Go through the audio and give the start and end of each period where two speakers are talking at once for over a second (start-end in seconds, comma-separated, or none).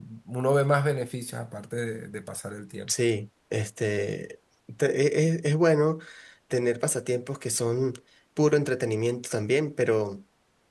none